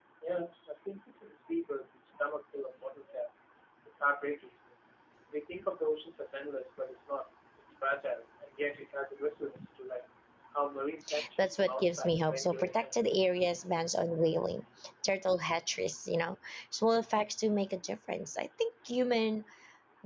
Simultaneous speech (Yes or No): Yes